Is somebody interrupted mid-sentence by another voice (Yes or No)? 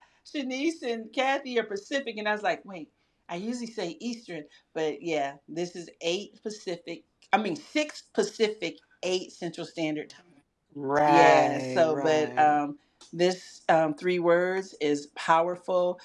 Yes